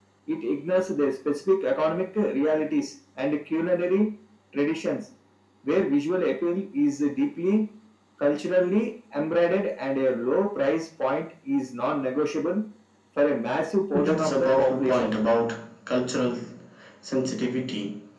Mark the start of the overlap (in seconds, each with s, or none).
13.9 s